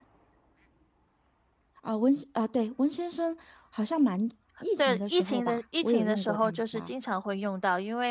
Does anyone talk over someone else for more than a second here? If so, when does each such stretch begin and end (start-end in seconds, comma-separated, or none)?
4.8-6.9